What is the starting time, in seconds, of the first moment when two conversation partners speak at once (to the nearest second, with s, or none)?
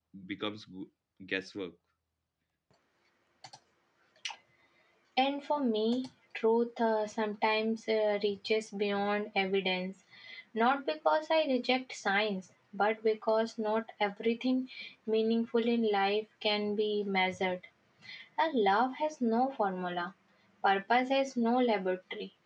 none